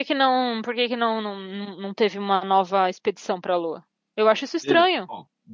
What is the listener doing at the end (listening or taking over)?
taking over